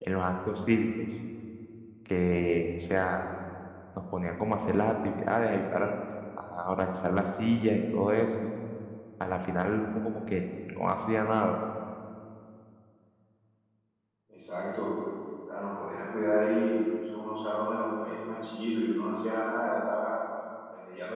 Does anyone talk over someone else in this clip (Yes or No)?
No